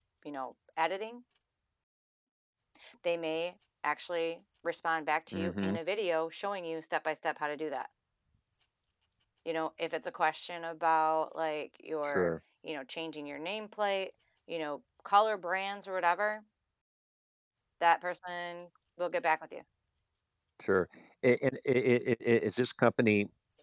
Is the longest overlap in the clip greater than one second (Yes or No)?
No